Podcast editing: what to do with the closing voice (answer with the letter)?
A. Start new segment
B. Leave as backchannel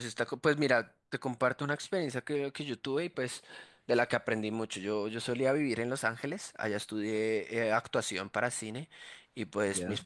B